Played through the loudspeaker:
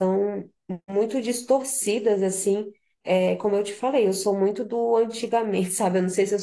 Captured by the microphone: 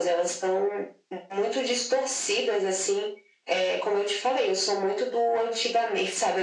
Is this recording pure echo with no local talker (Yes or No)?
Yes